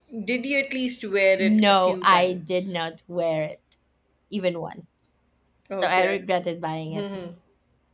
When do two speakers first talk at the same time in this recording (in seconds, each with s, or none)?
1.4 s